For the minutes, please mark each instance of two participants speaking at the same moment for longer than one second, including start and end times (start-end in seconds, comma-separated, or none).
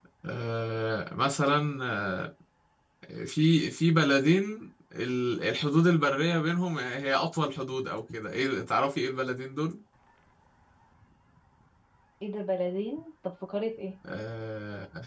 none